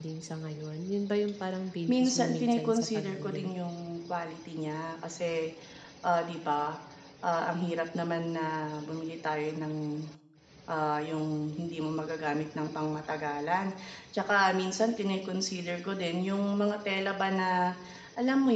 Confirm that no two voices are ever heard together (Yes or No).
No